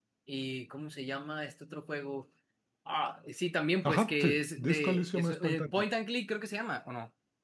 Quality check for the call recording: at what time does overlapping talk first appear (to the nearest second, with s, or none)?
4 s